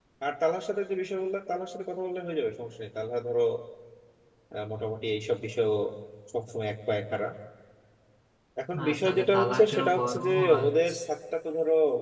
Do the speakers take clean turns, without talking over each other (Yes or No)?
No